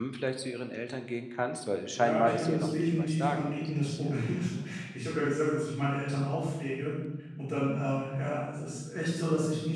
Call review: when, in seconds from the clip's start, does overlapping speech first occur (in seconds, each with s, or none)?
1.9 s